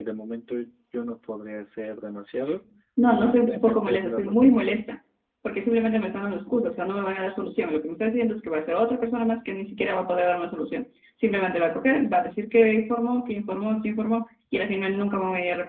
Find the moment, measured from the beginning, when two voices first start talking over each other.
3.1 s

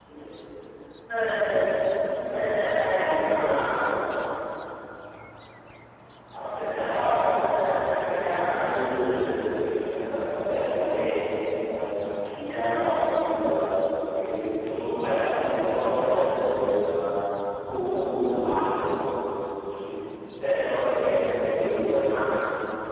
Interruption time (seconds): 2.3 s

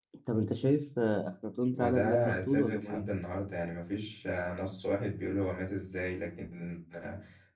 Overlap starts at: 1.7 s

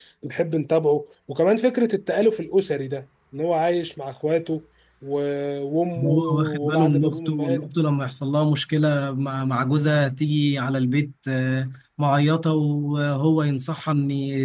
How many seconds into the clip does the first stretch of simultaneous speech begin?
6.0 s

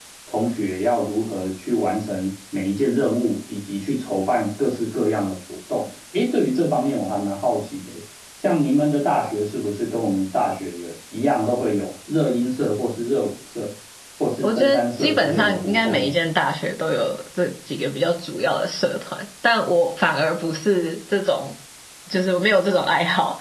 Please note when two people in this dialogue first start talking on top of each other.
14.4 s

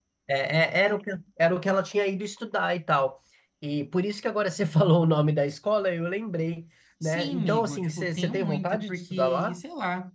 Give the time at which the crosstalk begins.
7.0 s

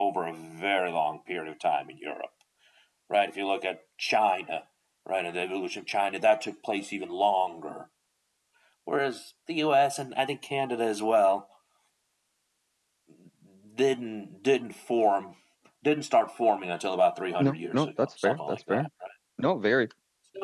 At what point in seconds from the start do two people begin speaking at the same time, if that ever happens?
17.4 s

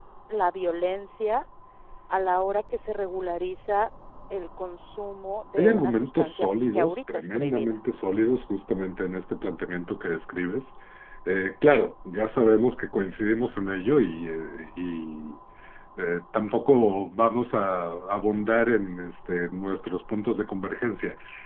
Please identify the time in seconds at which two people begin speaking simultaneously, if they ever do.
5.6 s

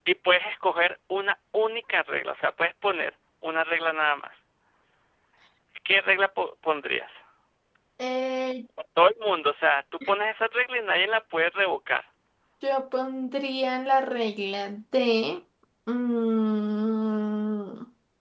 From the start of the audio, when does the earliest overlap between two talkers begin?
none

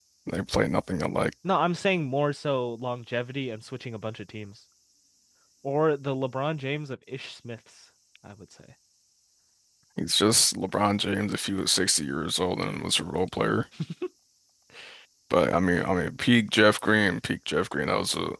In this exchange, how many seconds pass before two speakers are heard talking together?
none

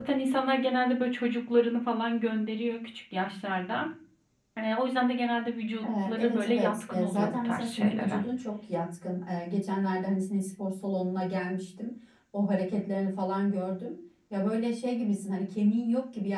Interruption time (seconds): 5.8 s

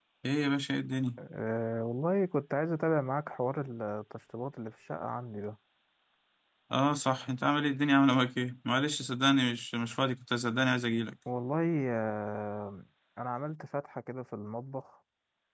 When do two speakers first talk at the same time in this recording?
none

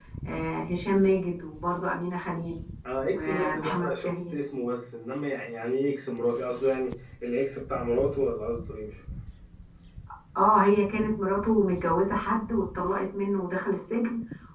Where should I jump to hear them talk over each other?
3.0 s

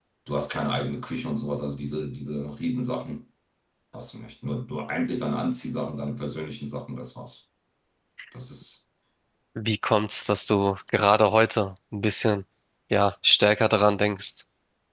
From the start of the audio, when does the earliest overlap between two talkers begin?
none

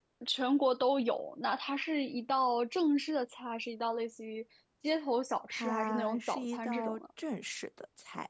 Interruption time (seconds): 5.5 s

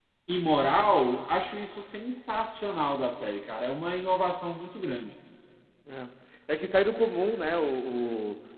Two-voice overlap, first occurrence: none

